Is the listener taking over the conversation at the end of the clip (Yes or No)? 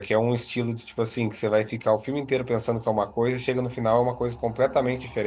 No